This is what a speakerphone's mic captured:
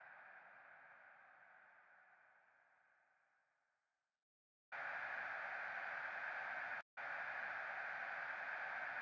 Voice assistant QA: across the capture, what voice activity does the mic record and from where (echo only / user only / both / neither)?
neither